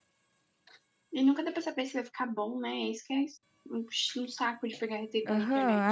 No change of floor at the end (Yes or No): No